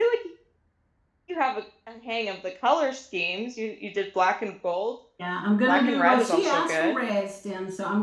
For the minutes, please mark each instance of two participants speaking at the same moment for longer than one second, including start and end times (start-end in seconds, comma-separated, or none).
5.7-7.0